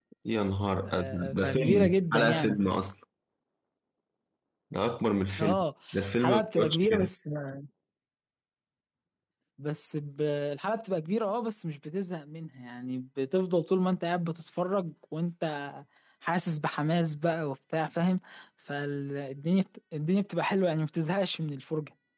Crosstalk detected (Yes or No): Yes